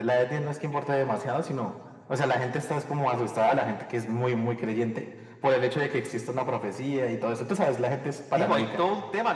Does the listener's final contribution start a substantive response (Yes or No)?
Yes